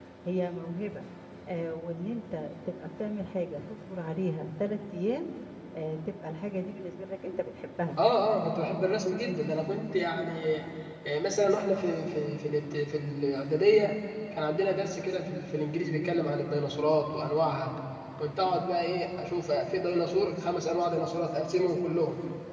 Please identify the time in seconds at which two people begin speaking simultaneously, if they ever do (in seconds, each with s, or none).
none